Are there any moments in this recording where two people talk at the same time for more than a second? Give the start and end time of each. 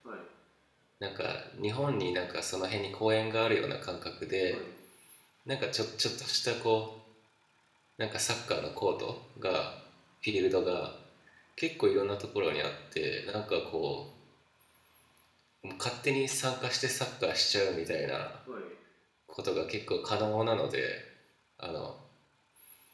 none

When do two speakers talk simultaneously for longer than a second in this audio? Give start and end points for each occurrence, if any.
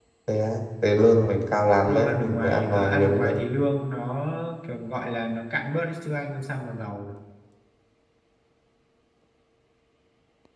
1.9-3.3

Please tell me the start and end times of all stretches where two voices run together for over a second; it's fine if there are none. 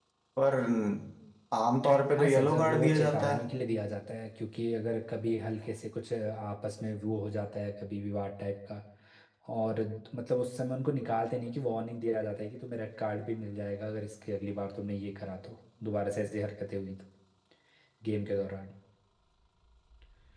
2.2-3.4

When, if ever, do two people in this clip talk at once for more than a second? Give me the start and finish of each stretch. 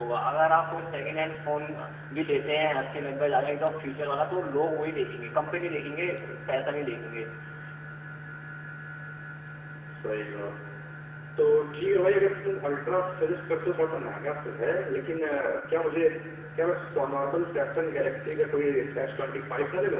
none

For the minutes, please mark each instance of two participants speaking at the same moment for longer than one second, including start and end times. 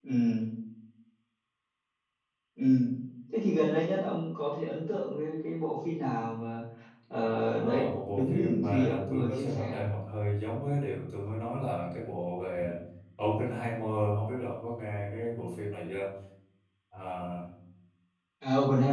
7.6-9.8

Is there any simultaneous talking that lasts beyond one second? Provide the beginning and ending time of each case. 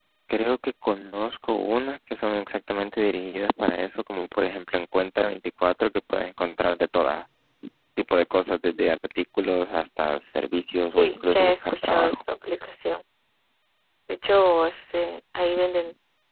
11.0-12.2

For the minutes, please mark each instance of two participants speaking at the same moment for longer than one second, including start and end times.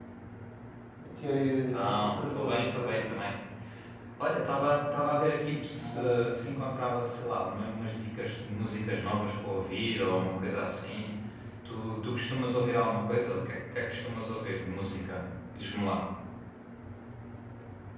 1.7-3.1

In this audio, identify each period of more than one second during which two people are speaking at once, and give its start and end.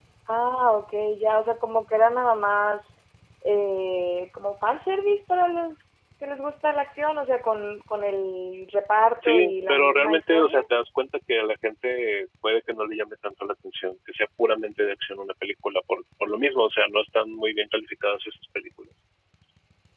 9.2-10.6

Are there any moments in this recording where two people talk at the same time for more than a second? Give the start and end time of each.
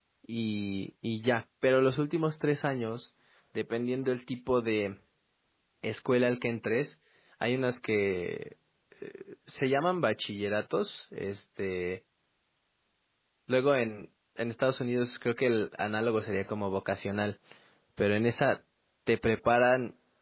none

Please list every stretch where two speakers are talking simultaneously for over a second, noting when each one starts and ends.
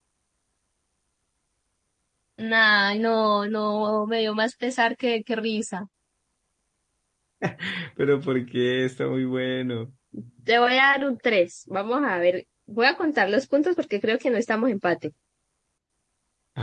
none

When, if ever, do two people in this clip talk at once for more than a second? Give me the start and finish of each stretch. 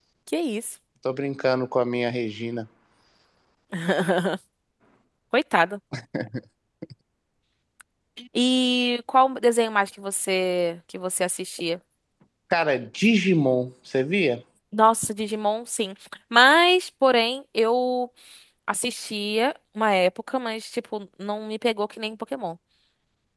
none

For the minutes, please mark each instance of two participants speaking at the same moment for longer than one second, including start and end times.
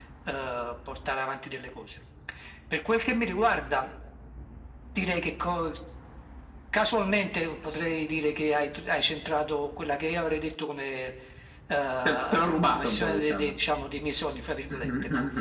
12.1-13.5

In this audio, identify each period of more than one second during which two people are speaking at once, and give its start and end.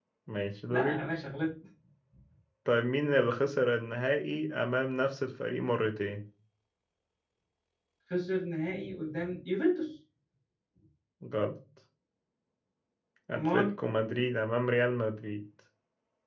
none

